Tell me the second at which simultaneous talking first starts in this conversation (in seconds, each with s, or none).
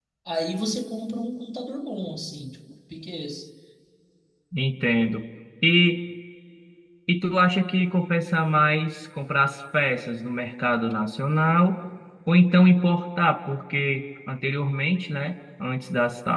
none